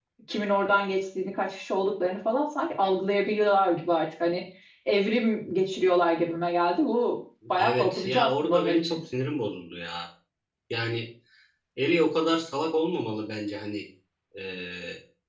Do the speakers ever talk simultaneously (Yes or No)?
Yes